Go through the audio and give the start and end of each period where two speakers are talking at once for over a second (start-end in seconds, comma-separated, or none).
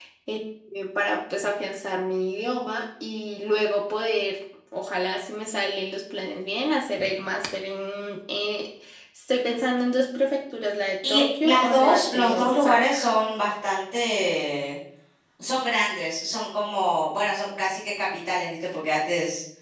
11.1-13.0